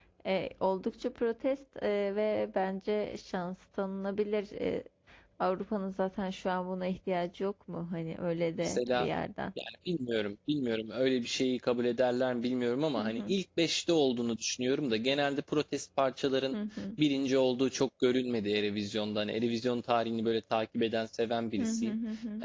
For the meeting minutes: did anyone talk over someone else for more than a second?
No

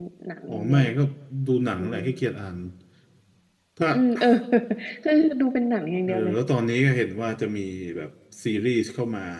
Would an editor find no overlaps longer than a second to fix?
Yes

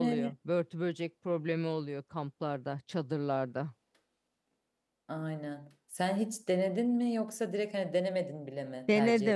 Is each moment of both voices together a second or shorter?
Yes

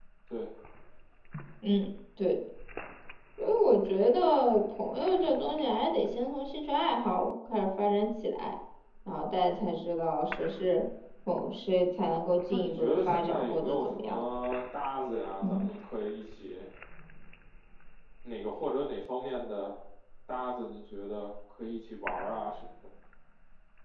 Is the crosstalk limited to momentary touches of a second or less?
No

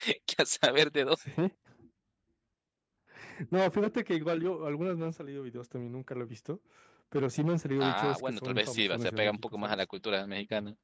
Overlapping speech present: Yes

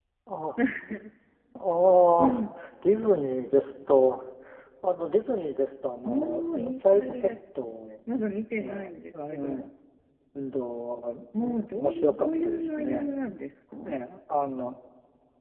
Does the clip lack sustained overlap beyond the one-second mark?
No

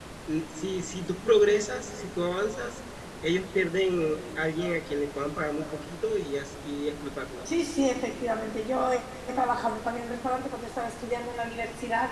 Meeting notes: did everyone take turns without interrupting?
Yes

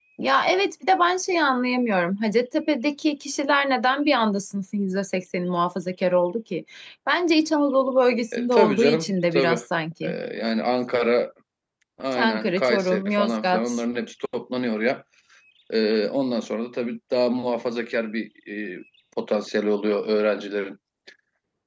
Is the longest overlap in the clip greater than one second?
Yes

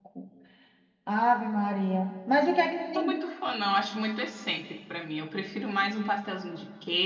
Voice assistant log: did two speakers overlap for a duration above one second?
No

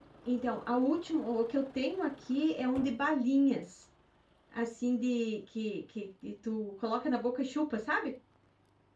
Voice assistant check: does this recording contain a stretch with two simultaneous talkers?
No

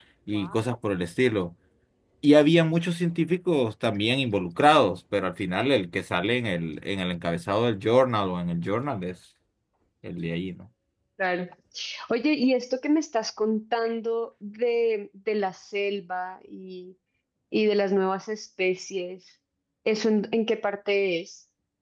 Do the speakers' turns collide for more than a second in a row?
No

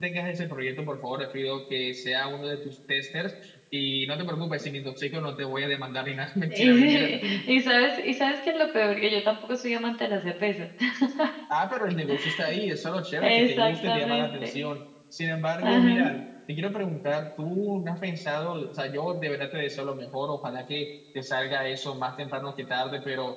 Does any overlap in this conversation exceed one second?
Yes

